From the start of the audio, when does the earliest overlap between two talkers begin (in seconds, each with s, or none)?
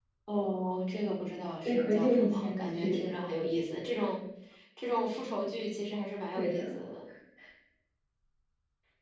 1.6 s